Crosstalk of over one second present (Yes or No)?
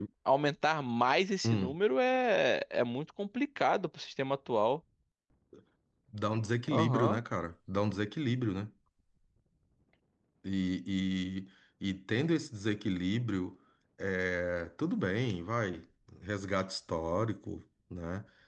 No